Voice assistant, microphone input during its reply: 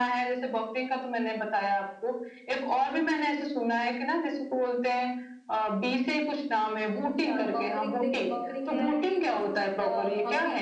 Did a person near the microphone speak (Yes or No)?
Yes